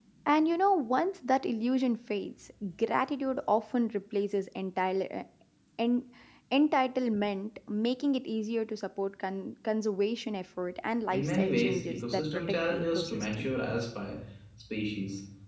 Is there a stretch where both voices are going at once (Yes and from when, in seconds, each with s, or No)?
Yes, from 11.1 s